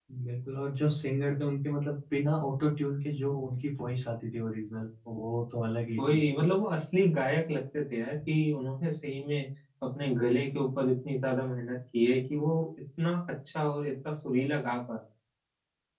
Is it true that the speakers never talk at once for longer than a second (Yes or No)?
Yes